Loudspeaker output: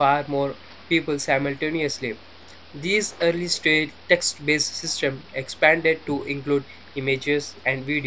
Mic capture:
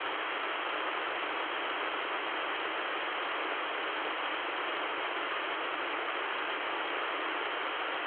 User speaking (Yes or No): No